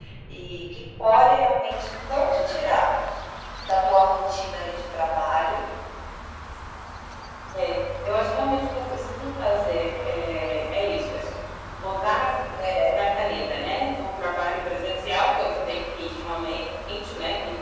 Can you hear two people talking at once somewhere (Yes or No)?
No